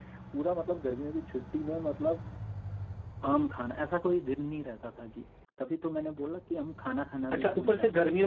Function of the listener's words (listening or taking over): taking over